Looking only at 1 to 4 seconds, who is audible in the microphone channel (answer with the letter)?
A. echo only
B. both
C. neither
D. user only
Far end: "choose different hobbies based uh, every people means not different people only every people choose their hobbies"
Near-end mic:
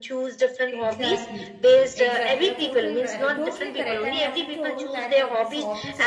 B